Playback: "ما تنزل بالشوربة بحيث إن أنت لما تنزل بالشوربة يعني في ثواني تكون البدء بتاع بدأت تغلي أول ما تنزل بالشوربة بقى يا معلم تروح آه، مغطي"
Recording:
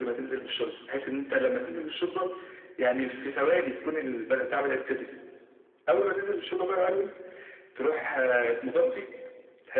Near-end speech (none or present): none